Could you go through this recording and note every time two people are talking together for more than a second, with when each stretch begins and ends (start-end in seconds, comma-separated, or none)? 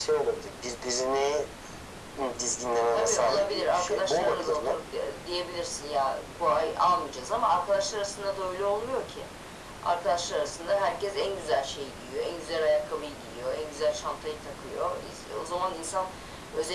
2.9-4.8